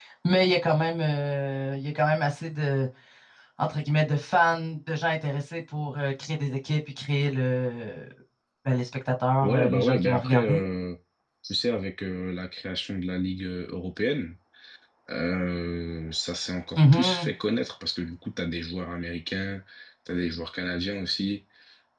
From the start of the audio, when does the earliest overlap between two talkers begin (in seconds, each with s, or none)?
9.4 s